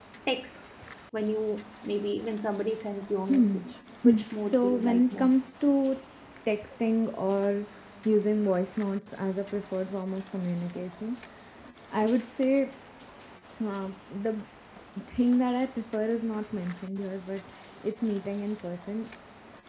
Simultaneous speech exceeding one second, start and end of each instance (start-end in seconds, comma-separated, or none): 4.0-5.3